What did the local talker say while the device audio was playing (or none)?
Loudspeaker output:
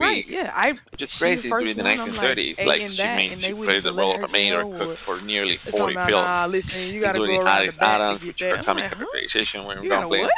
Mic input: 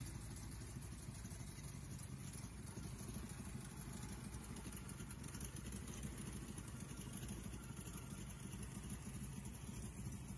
none